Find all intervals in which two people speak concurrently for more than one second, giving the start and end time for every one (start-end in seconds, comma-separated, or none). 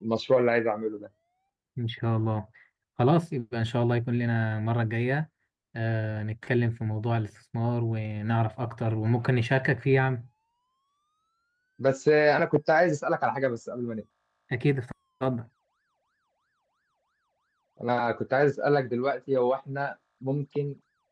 none